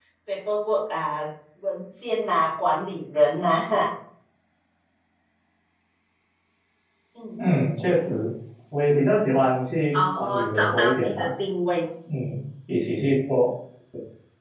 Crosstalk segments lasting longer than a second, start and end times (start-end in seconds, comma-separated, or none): 9.9-11.3